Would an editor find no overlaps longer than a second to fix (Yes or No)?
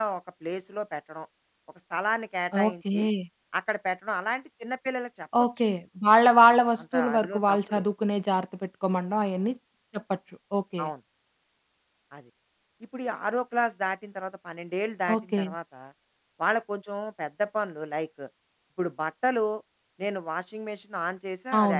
No